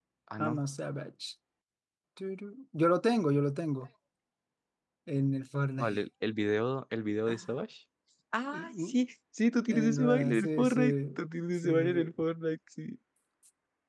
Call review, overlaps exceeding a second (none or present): present